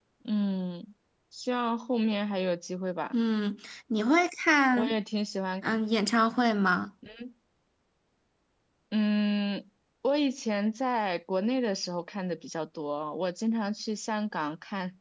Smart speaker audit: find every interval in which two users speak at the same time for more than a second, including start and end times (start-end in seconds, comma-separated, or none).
none